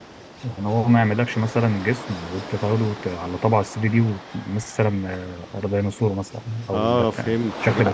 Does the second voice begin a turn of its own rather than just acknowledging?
Yes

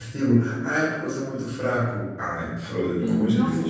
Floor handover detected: Yes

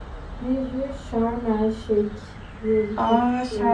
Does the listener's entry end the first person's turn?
Yes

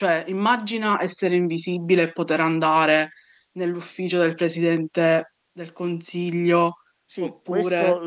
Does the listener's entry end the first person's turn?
Yes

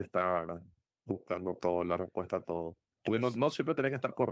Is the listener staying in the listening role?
Yes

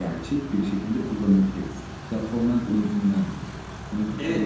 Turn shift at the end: Yes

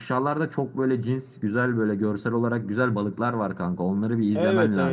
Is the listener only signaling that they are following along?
No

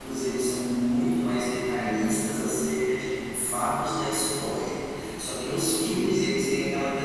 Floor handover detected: No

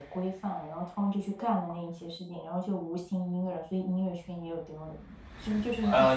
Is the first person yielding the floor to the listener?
Yes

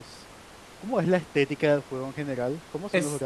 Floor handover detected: Yes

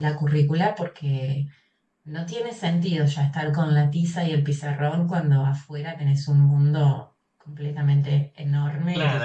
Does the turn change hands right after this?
Yes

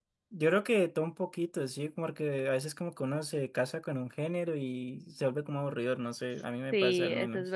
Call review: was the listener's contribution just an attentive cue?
No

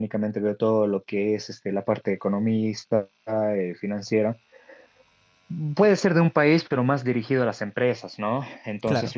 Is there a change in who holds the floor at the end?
No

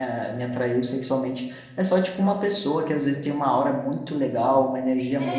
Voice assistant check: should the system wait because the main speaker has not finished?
Yes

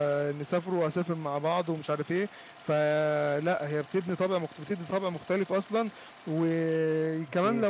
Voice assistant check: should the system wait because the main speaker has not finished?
Yes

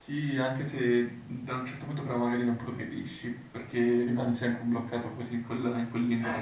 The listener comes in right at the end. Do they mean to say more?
Yes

